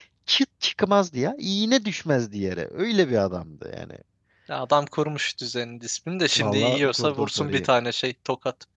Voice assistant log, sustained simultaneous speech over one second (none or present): present